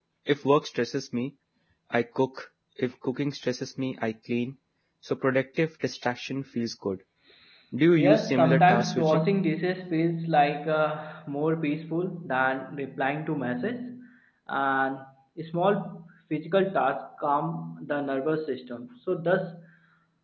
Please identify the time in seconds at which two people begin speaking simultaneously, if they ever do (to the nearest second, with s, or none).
8 s